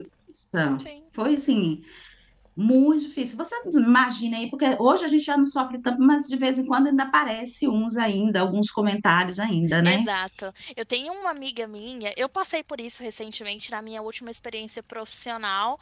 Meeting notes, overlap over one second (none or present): none